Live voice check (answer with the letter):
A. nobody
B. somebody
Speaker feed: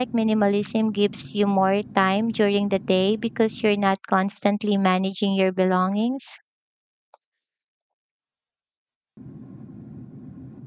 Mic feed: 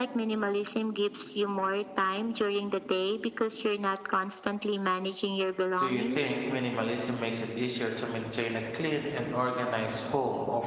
B